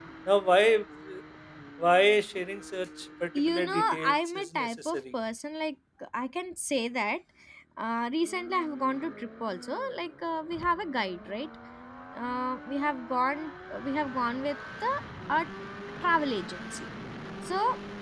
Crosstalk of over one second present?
Yes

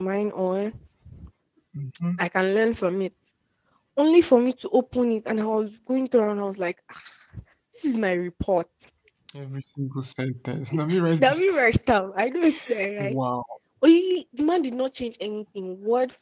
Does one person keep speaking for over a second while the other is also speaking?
No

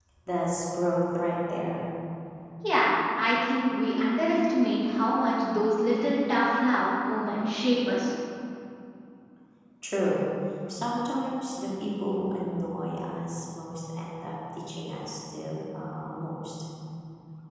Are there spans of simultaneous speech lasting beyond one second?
No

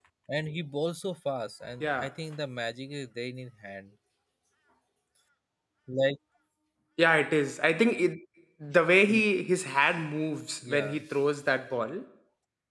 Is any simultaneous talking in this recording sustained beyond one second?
No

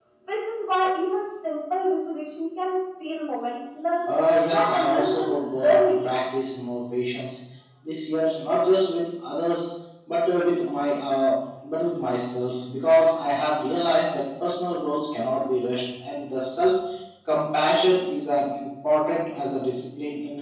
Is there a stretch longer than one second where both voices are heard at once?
Yes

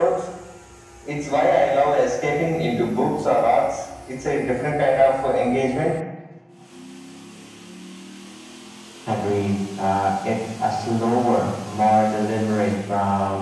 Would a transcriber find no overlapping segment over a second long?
Yes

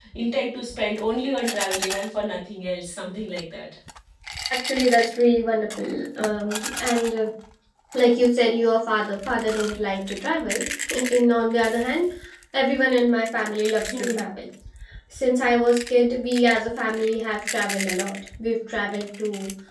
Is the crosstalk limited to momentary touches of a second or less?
Yes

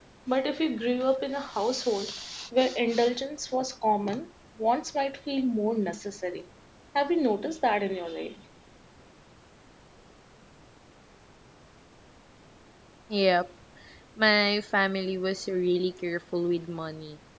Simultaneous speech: No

